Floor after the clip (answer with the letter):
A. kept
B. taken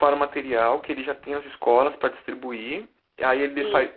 A